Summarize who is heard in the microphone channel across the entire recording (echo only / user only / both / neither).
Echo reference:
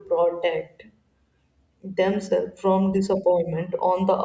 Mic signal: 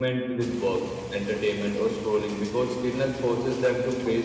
user only